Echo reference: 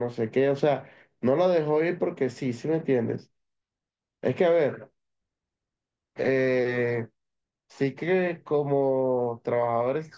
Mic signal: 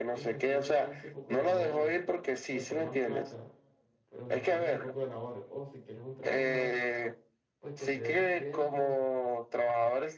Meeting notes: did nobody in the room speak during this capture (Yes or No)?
No